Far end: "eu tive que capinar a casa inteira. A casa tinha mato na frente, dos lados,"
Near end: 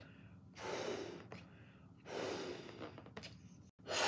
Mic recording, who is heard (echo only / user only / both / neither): neither